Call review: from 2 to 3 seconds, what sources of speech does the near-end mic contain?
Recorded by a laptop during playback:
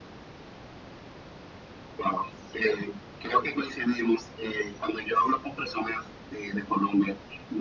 echo only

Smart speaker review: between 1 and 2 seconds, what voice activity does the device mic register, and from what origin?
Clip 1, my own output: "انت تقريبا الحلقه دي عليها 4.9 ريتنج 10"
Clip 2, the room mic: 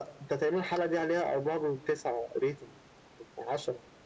echo only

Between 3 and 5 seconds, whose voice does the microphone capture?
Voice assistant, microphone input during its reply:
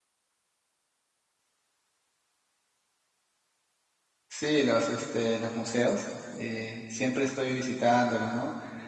user only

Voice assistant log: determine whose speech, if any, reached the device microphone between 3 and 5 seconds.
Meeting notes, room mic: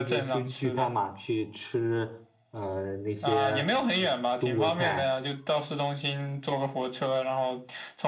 both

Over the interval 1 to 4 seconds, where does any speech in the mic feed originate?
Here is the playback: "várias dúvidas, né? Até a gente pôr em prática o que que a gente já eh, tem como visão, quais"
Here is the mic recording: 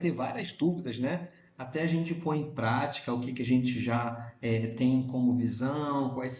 echo only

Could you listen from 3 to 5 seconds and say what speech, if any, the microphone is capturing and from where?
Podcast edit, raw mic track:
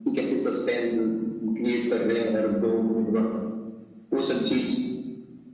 echo only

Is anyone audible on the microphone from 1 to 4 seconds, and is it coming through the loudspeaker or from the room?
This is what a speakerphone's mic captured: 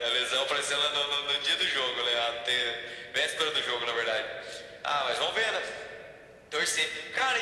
echo only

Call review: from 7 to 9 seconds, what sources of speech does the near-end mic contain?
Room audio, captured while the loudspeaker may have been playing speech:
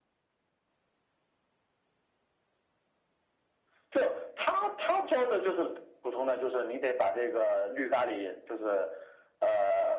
echo only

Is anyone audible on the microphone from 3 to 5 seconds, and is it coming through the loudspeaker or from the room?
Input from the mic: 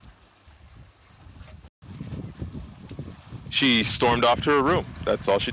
user only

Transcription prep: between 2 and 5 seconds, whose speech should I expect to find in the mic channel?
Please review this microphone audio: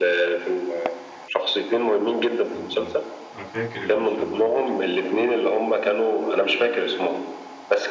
both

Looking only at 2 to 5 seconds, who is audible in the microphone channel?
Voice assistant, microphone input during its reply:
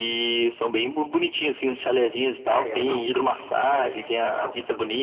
both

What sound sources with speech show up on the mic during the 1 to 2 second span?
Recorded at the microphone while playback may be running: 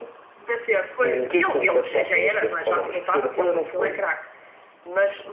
echo only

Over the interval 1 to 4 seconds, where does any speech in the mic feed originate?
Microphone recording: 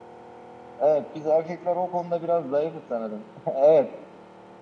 user only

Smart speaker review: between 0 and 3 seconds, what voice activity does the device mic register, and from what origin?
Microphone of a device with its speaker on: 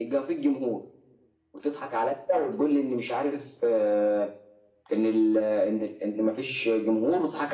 echo only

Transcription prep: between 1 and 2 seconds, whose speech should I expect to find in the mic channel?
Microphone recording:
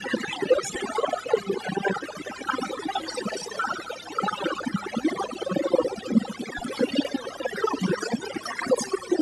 echo only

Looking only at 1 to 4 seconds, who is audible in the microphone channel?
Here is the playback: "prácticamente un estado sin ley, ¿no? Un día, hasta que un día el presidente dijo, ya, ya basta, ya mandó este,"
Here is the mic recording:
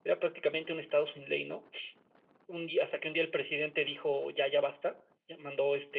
echo only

